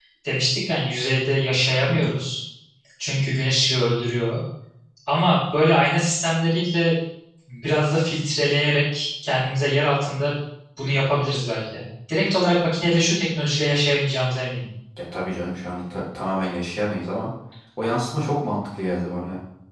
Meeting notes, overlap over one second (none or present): none